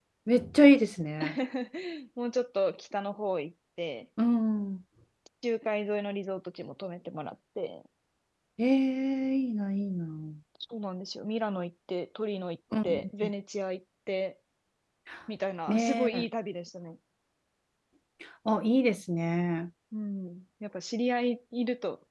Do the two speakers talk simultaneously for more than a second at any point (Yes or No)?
No